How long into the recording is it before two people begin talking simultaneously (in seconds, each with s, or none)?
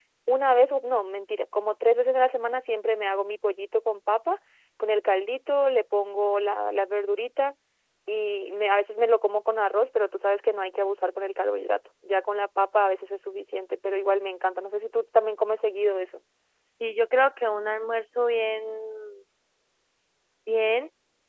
none